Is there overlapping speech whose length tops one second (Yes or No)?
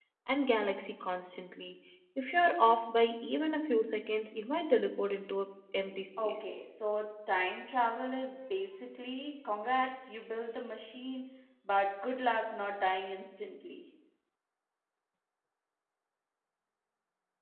No